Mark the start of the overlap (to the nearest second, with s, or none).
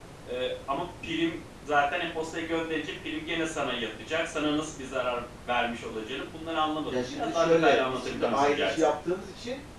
7 s